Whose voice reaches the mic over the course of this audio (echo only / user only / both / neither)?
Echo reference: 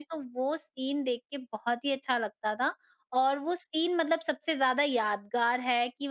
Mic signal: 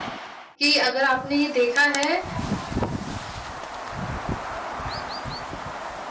user only